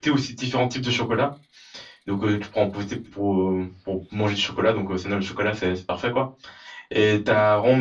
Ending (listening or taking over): listening